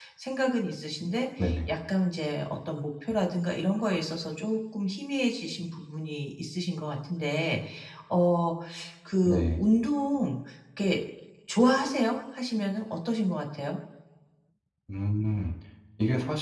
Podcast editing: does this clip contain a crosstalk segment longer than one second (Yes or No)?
No